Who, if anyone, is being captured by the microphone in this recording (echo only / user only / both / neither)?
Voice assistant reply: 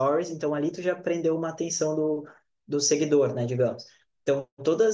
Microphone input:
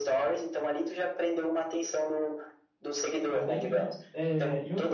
both